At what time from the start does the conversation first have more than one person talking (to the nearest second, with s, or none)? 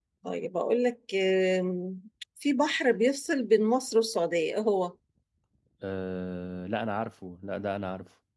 none